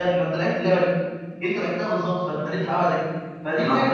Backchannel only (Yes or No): Yes